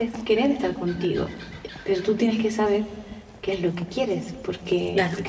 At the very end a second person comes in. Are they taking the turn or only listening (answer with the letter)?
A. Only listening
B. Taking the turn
A